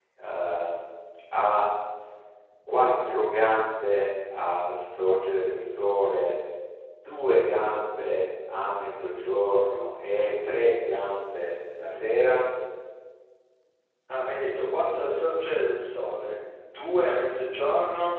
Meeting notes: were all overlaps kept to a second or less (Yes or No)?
Yes